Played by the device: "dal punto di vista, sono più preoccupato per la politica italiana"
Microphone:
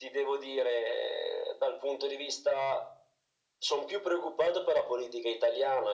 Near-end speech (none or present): none